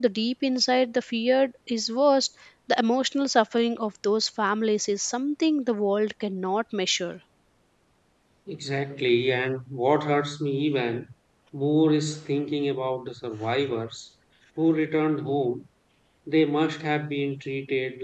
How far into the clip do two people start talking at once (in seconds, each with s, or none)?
none